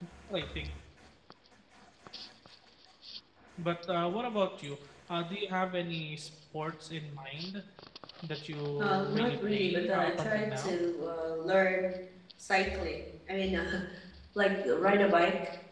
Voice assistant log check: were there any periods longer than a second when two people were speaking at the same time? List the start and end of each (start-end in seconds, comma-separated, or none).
8.8-10.8